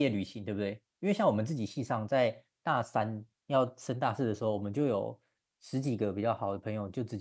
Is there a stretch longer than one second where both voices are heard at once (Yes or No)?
No